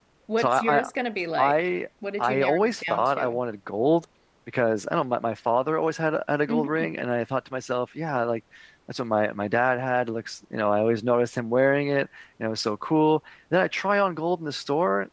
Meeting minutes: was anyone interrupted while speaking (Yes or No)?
Yes